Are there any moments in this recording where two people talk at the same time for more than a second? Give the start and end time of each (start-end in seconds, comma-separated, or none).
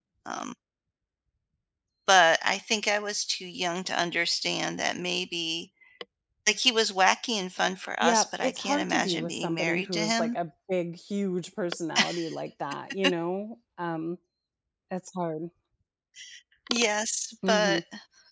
8.0-10.3